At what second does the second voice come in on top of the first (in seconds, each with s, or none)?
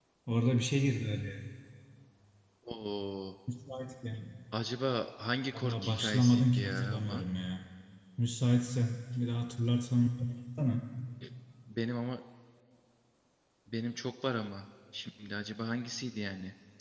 5.5 s